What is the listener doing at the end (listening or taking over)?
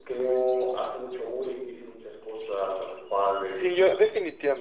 taking over